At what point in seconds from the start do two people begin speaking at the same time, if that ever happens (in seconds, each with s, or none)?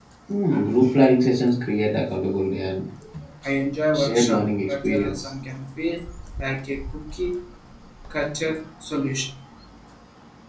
3.9 s